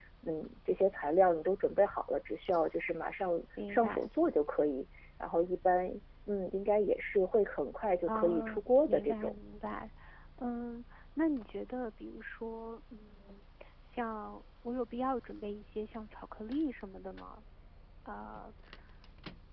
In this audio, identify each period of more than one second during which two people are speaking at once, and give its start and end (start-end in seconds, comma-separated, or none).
8.0-9.4